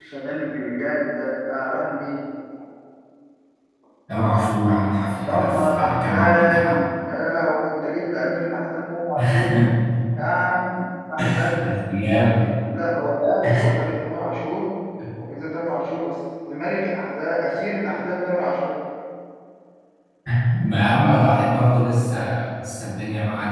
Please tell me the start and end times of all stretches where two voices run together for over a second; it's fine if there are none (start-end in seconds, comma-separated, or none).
5.2-6.8